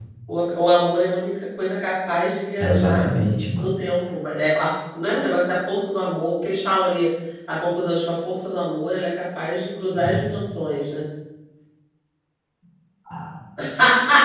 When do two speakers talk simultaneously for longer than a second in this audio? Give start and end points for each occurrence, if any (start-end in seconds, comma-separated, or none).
none